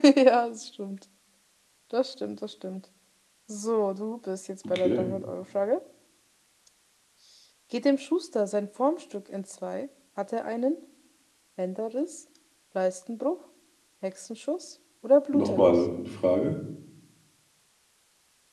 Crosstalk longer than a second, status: none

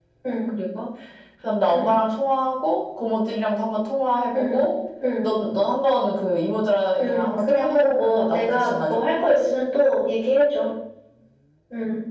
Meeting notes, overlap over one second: present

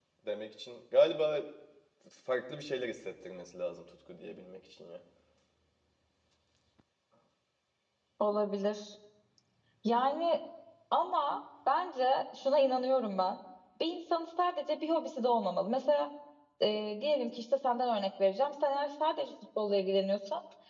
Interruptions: none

